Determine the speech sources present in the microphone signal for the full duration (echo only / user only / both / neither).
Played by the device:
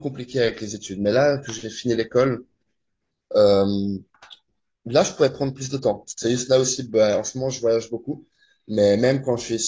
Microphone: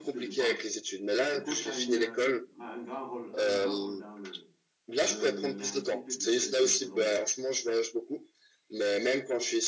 both